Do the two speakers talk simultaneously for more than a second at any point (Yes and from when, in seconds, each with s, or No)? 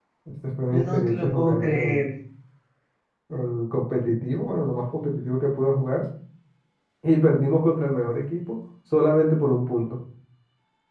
Yes, from 0.7 s